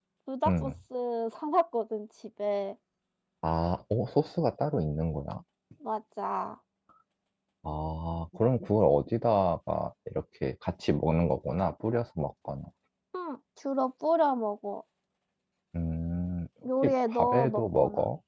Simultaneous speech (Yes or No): Yes